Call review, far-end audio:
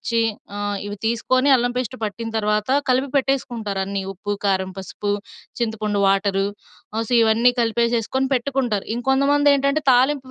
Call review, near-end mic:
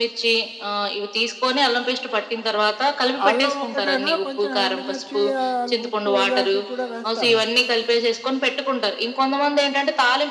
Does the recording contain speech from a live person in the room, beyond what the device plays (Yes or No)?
Yes